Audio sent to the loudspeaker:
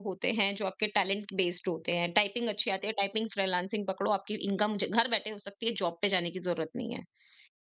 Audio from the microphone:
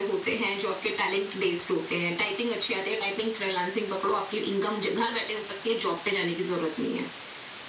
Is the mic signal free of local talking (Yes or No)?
Yes